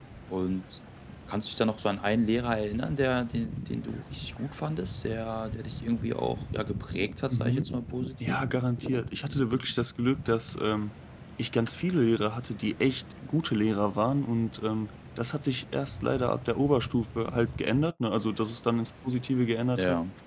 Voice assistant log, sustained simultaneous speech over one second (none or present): none